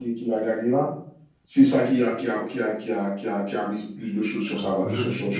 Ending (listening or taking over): taking over